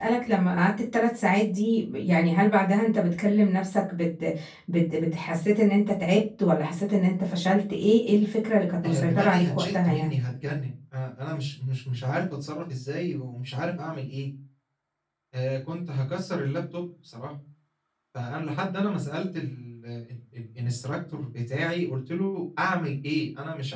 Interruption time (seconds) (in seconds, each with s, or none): 8.8 s